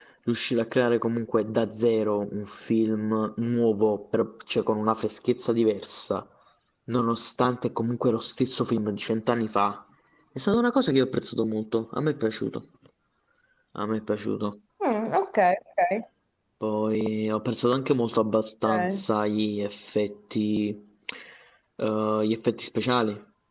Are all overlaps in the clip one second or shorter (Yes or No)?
Yes